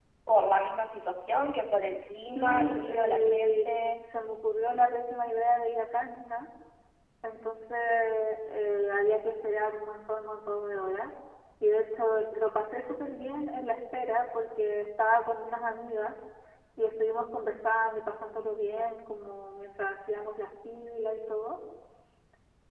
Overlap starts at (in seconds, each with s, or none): 2.3 s